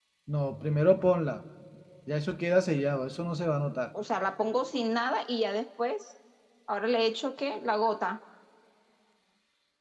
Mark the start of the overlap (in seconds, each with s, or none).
none